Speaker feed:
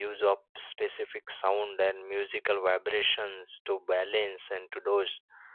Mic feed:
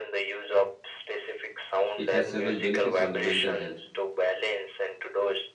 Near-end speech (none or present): present